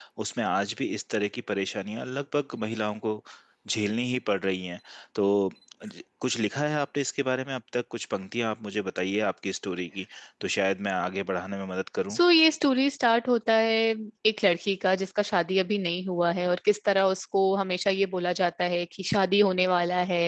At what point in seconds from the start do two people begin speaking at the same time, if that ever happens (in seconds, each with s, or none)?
none